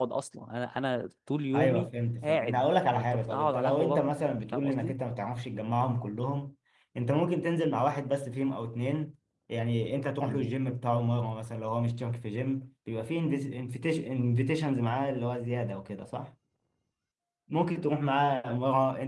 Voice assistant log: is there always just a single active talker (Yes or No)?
No